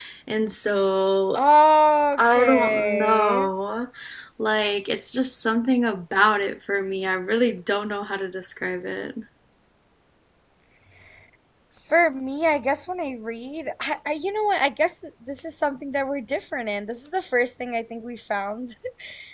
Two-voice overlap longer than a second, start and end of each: 2.2-3.5

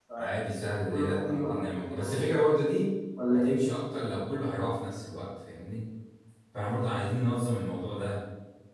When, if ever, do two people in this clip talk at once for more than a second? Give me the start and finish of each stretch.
0.9-2.1

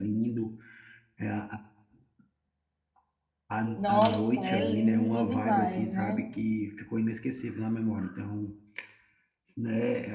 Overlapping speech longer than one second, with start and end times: 3.8-6.2

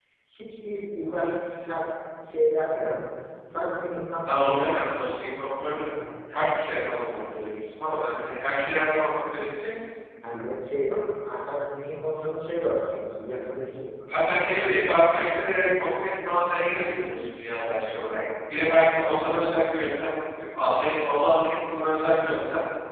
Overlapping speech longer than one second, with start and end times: none

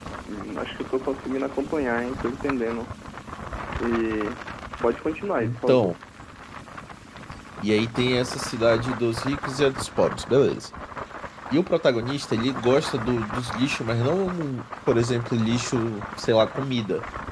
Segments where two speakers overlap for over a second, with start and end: none

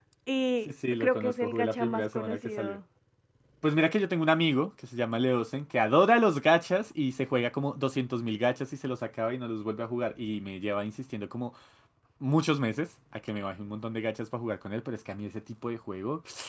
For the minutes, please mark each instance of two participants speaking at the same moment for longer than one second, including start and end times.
0.7-2.8

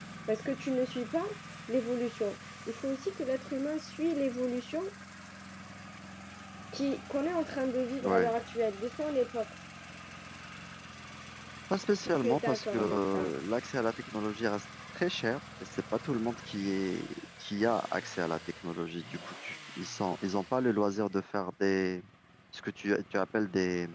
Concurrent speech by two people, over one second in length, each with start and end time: 12.0-13.3

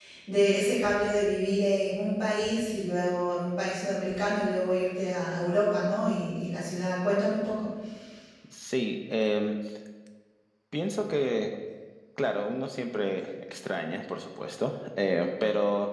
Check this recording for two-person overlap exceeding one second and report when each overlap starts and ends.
none

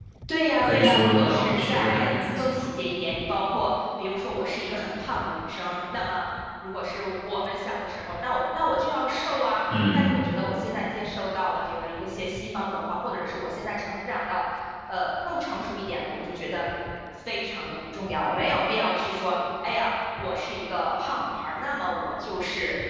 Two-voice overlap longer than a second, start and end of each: 0.6-2.7

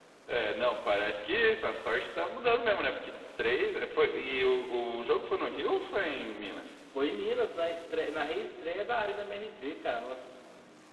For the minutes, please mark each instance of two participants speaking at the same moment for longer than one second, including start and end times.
none

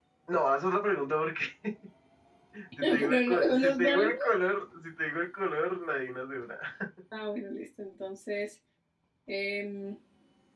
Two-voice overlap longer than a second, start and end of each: 2.8-4.1

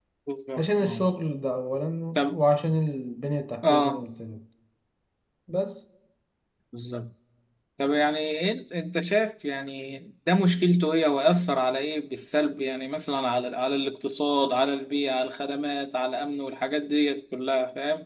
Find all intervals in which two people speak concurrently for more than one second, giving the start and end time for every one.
none

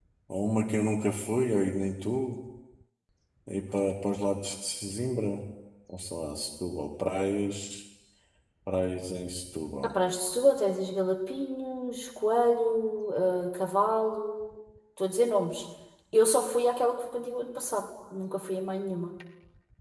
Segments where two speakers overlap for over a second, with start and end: none

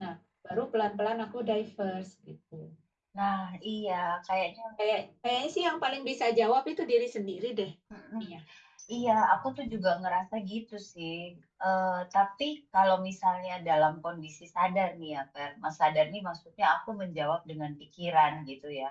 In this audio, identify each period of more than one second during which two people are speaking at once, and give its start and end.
none

